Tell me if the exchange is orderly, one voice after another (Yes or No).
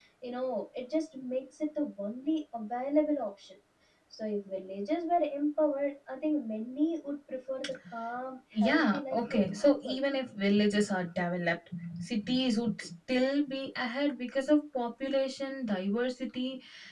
No